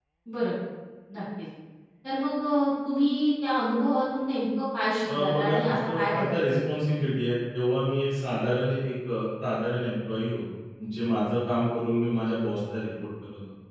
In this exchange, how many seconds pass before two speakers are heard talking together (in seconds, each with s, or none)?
5.1 s